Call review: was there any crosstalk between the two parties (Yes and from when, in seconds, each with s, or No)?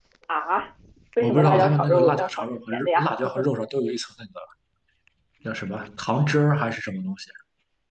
Yes, from 1.2 s